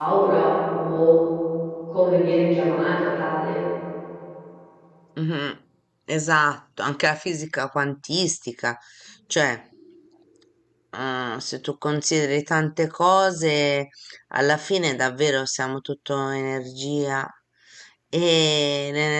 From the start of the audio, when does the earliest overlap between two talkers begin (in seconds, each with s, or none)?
none